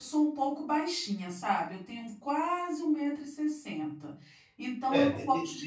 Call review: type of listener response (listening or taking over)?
taking over